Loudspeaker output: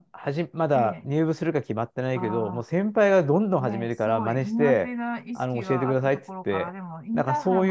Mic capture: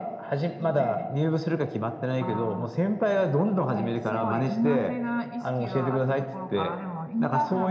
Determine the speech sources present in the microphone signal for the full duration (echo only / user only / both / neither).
both